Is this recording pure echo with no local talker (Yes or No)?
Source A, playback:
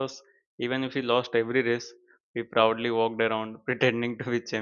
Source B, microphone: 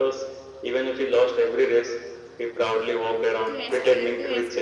No